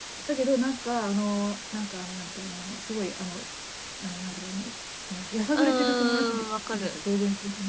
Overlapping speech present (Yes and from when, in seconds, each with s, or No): Yes, from 5.6 s